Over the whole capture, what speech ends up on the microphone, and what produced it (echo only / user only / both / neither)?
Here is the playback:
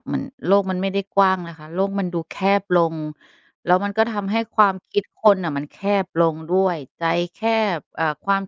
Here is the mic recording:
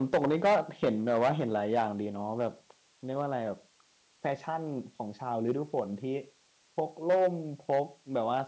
user only